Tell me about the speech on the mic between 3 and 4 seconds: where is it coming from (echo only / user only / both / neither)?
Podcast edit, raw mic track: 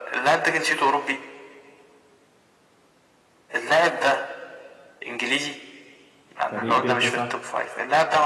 echo only